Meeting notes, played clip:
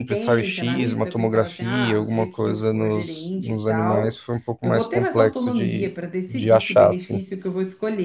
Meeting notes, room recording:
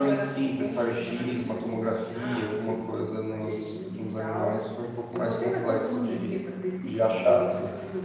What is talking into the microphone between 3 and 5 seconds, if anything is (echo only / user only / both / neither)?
echo only